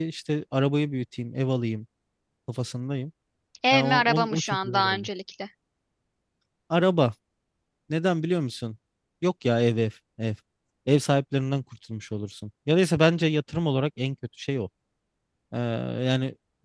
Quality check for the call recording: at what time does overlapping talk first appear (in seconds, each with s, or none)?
3.7 s